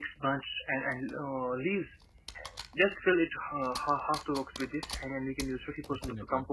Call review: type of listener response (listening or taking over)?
listening